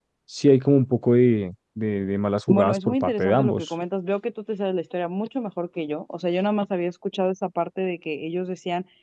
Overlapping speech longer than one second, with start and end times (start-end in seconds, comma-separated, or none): 2.5-3.7